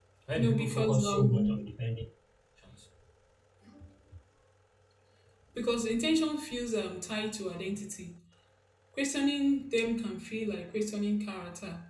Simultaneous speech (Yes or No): Yes